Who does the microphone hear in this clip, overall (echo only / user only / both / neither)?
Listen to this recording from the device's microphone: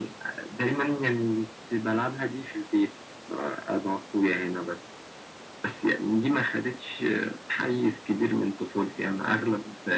echo only